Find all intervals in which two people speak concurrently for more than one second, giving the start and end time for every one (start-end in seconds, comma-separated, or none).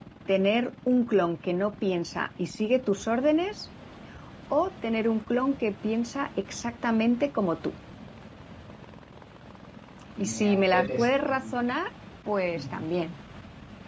10.2-11.6